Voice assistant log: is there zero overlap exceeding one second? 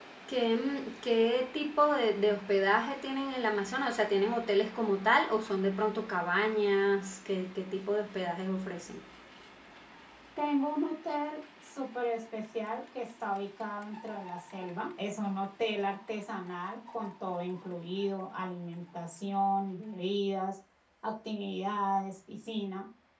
Yes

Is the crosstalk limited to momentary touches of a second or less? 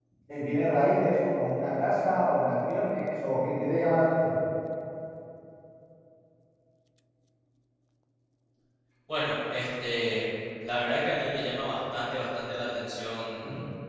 Yes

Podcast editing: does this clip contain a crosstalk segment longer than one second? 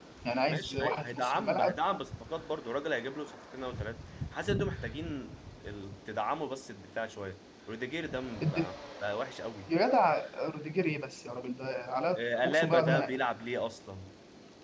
Yes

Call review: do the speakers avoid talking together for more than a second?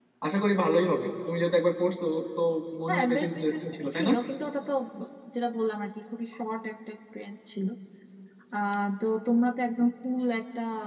No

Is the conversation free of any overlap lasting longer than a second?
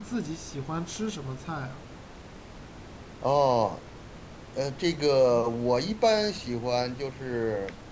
Yes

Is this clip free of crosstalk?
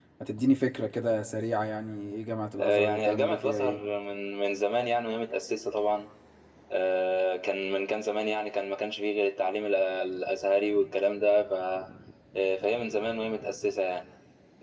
No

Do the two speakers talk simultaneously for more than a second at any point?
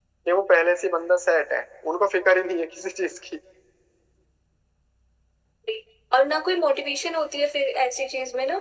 No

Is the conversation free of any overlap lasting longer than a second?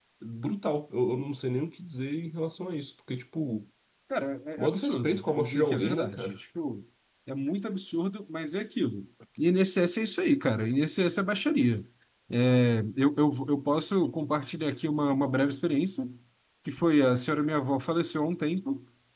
No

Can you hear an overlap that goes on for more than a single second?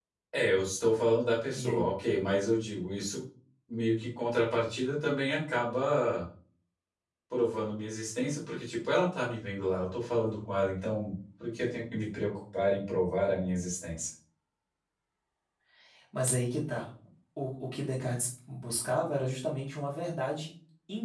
No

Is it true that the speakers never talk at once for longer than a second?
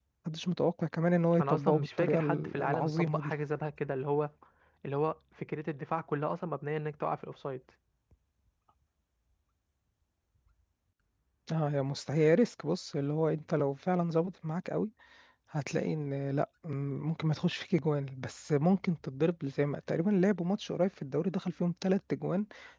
No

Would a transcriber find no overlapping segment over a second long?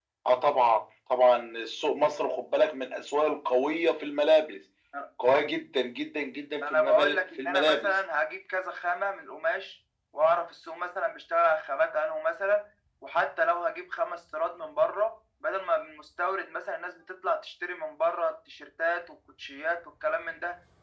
No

